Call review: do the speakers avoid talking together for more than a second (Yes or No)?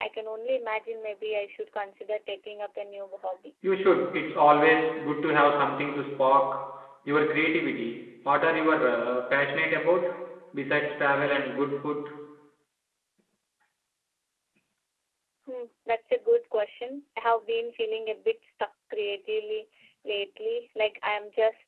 Yes